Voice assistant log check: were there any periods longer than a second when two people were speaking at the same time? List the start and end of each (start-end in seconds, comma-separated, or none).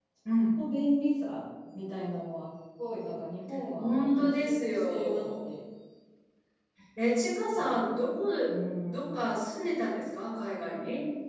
3.8-5.4